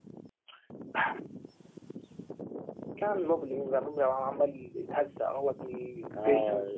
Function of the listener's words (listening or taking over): taking over